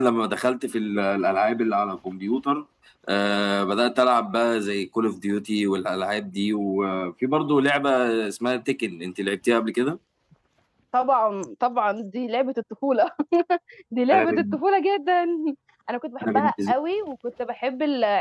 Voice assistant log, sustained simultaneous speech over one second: none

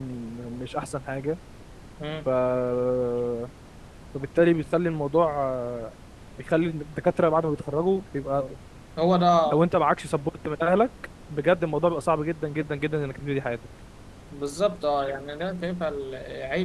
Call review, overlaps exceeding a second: none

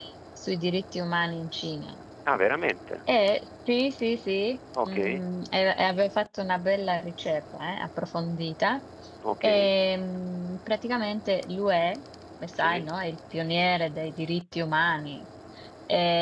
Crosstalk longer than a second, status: none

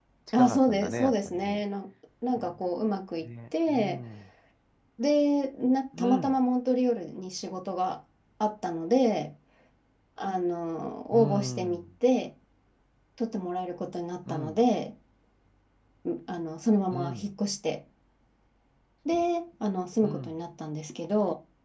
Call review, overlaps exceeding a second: present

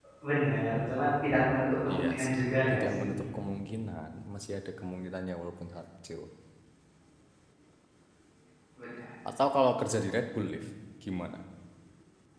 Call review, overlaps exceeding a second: present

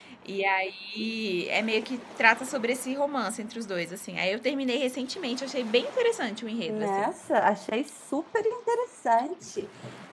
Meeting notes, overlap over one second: none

